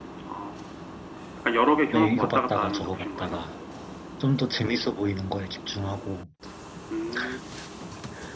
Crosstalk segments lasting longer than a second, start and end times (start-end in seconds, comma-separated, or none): 1.9-3.5